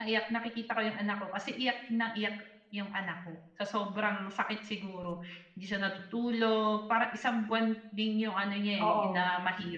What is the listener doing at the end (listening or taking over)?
listening